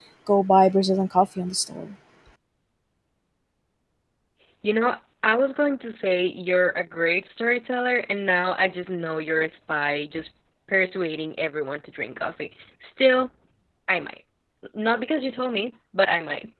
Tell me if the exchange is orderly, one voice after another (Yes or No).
Yes